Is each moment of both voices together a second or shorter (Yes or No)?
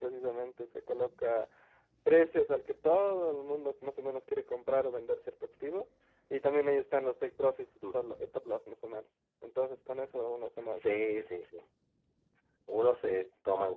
Yes